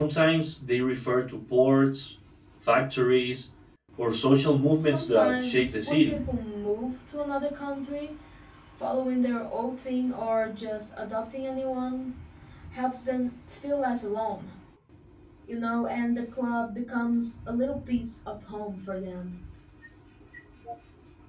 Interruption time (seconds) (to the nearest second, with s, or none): 5 s